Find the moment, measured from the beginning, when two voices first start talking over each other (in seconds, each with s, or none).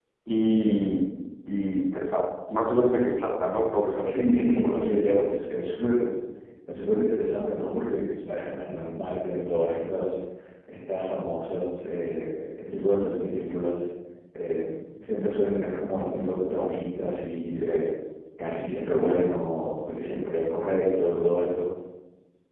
4.0 s